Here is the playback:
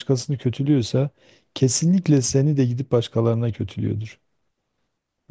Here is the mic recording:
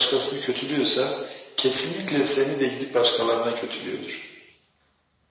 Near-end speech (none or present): none